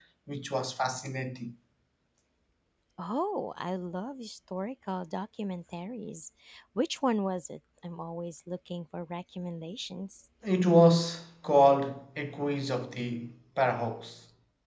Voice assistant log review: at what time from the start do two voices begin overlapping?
none

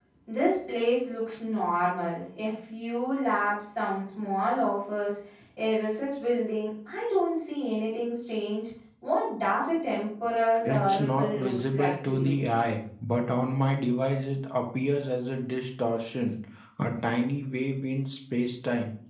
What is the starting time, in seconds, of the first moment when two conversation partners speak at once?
11 s

